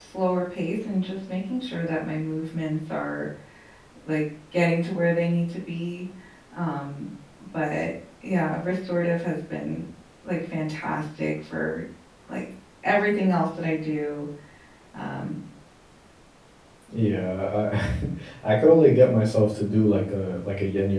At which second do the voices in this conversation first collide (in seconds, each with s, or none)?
none